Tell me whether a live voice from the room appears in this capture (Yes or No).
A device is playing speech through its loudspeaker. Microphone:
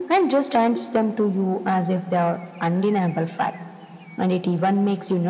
No